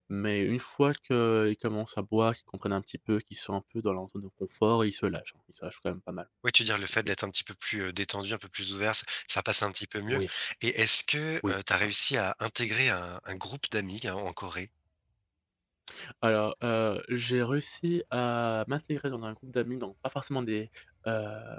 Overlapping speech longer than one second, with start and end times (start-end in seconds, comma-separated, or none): none